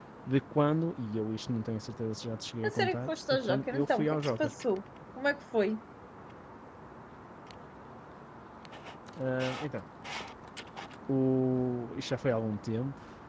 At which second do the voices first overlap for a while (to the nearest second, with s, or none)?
3 s